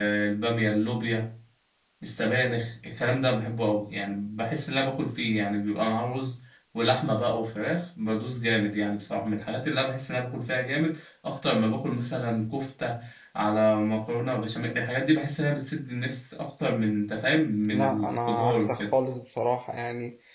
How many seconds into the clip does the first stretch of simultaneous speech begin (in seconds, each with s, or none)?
17.7 s